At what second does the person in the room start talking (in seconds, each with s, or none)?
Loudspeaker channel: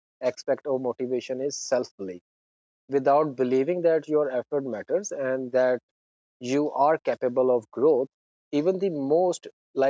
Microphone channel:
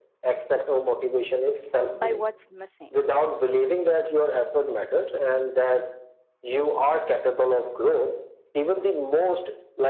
1.9 s